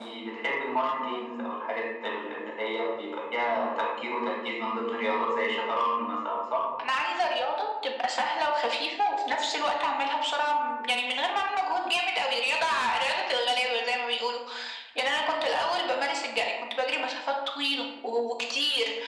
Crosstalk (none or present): none